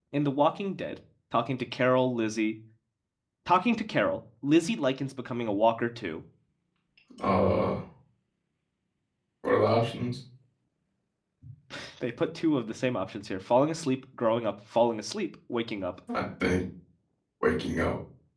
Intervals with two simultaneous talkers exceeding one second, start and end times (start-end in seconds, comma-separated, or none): none